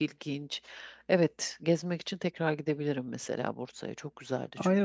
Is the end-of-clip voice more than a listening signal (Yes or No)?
Yes